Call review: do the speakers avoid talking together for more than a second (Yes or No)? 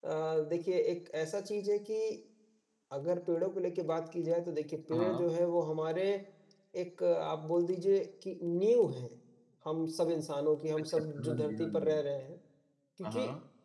No